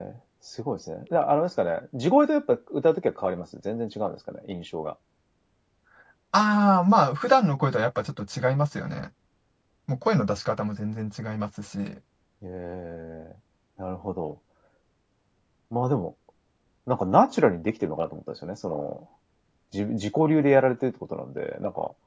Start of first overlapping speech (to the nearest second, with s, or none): none